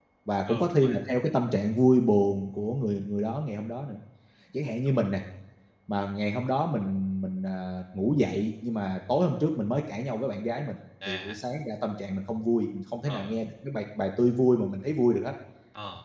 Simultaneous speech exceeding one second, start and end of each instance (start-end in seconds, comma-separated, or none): none